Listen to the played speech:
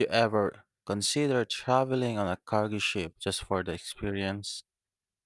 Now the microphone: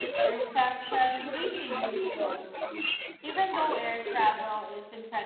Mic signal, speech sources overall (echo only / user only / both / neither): both